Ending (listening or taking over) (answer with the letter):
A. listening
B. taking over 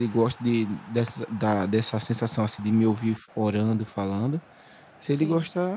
A